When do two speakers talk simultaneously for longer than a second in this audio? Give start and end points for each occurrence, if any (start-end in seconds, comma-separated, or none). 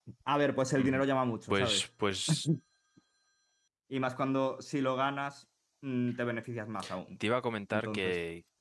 none